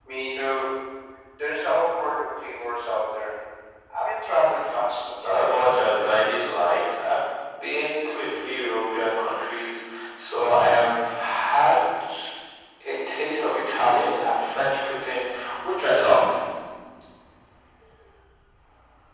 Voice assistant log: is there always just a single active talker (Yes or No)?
No